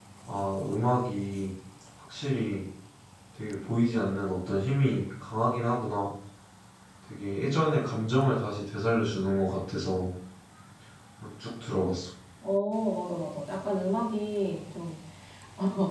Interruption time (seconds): none

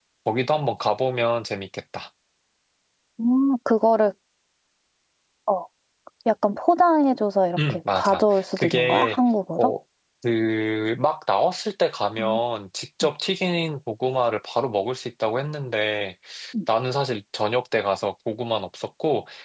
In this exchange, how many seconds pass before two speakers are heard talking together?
8 s

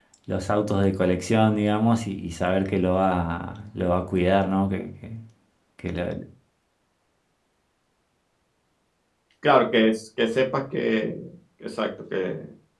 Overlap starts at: none

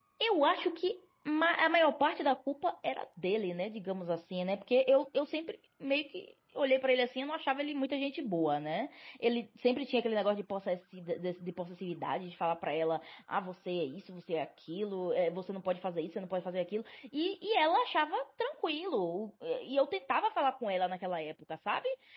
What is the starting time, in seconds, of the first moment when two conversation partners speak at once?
none

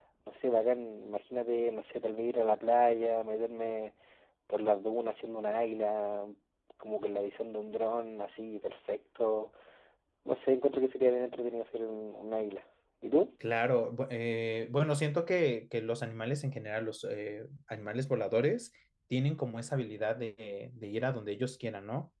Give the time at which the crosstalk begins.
none

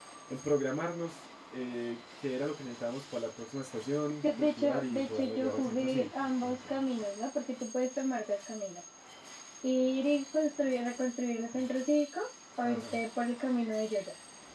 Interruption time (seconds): 4 s

